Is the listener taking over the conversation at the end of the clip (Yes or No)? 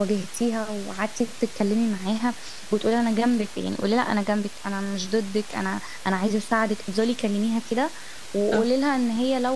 No